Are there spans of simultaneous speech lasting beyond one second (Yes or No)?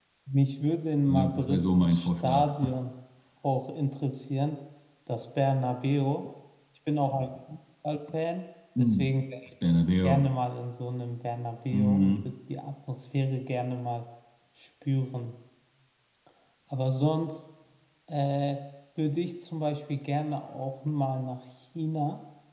Yes